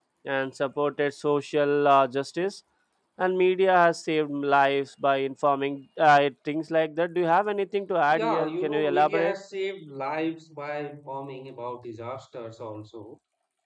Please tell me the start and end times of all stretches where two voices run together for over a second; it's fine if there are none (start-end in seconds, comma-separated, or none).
8.1-9.3